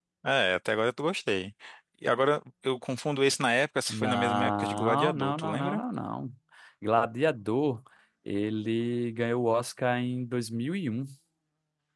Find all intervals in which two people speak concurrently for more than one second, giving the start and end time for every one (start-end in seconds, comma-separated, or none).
3.9-5.8